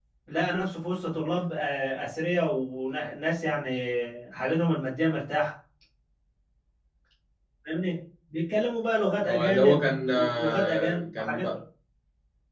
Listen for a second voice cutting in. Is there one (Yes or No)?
Yes